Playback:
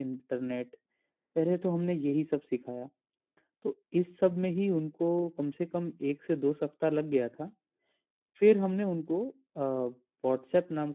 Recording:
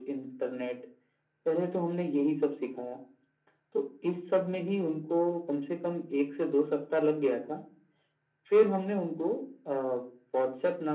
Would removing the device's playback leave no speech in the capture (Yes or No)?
Yes